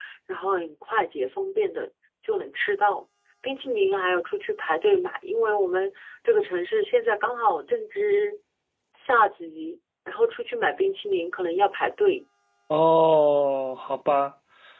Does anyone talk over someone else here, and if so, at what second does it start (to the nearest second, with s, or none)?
none